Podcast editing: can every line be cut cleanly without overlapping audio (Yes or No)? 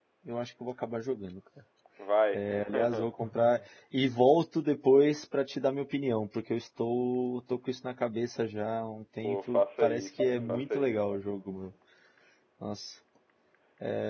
No